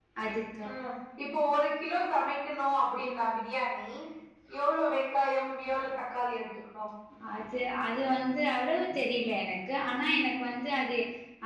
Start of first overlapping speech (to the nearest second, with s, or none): none